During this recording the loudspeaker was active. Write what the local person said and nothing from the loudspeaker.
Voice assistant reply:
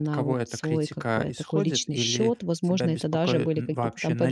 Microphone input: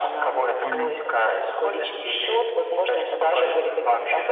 Понял.

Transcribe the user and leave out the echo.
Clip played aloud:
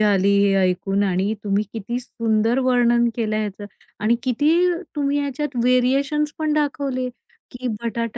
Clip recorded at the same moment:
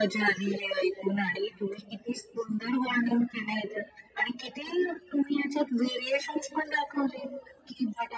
none

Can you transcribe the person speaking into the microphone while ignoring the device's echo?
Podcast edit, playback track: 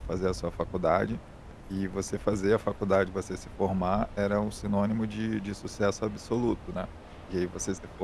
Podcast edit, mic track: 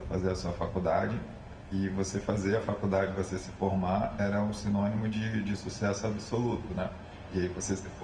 none

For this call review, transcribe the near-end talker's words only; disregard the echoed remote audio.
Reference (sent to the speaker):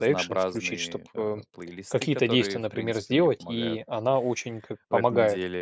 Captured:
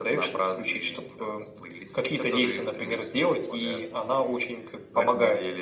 none

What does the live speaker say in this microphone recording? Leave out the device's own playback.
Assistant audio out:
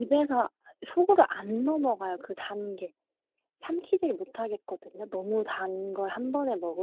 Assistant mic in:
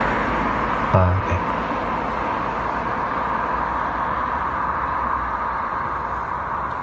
아 네.

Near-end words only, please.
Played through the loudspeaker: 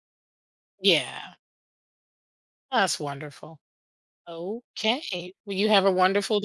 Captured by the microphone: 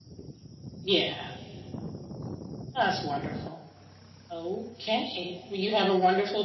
none

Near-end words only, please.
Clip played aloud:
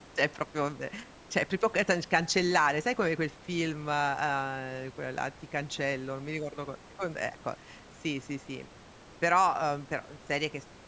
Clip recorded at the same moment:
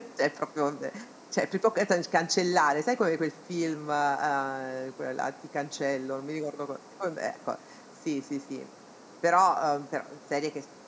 none

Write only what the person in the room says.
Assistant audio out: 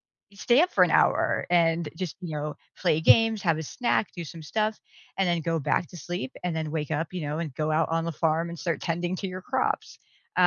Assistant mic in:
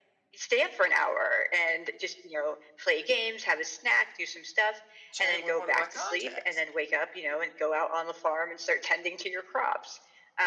chatting with one of my contacts.

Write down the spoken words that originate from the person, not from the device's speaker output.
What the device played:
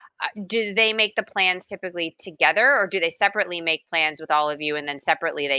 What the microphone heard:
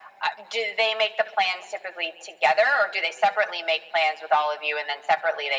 none

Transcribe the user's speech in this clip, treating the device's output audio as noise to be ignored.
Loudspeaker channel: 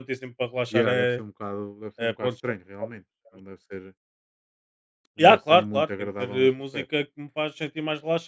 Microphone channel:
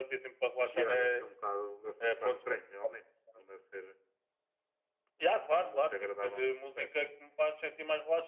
none

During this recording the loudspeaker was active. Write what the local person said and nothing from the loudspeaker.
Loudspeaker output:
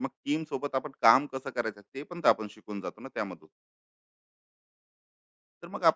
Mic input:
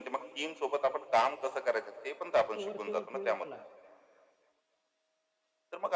फक्त वरच्या वर खेळून आला,

